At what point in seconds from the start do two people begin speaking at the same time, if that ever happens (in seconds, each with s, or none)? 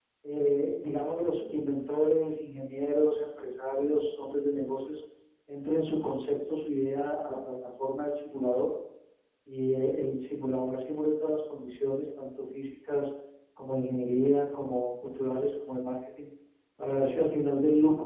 none